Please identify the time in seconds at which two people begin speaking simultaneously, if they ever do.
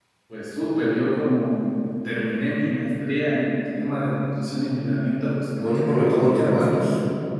6 s

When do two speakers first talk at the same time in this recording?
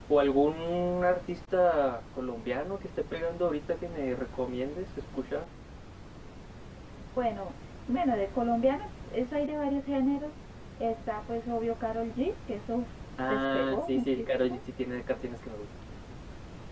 13 s

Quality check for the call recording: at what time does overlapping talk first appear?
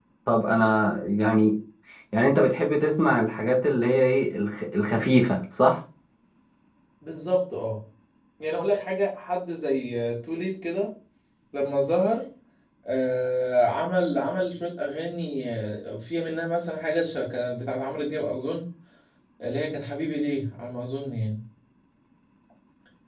none

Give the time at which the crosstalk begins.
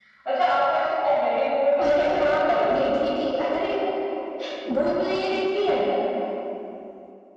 2 s

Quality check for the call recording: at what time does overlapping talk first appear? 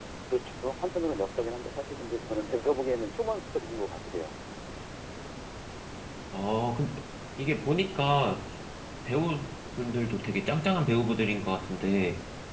none

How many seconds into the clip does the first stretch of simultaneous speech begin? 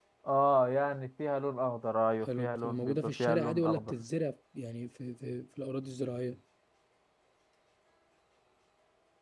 2 s

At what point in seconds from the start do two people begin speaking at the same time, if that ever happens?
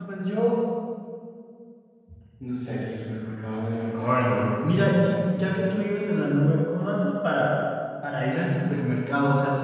4 s

